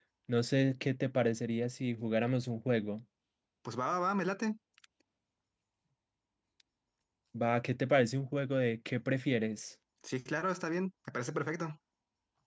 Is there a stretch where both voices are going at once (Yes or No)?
No